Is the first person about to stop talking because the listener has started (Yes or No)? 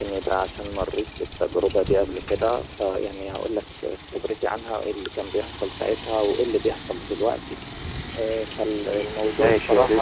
Yes